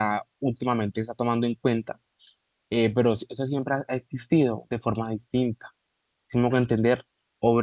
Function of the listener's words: listening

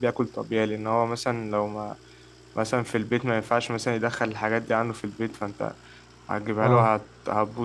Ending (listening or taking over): listening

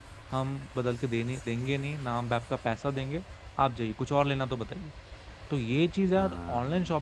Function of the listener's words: listening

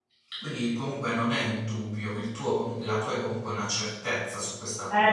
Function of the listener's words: taking over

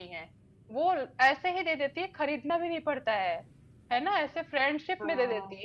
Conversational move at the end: listening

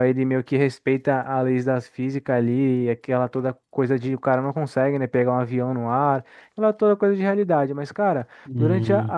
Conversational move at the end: listening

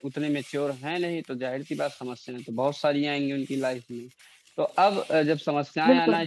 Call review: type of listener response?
listening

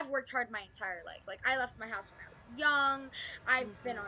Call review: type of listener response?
listening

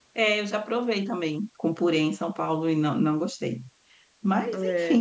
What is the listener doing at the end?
listening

